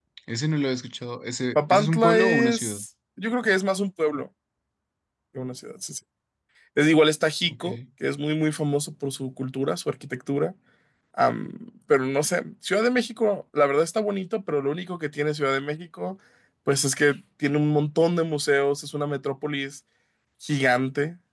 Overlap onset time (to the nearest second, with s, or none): 2 s